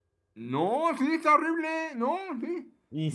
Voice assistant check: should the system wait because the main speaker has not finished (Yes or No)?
No